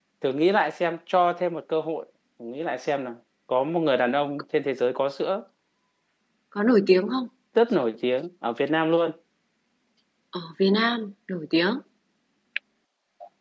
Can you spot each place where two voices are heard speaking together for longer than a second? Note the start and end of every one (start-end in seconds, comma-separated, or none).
none